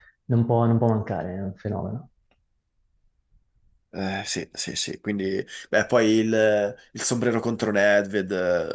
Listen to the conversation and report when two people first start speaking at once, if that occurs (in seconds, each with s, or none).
none